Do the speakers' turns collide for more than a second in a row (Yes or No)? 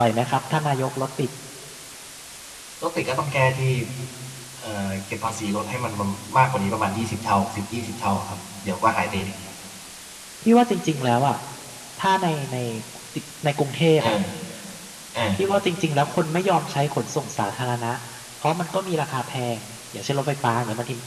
No